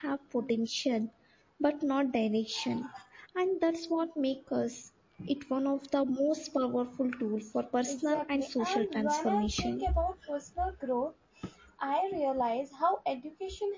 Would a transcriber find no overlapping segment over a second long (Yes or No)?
No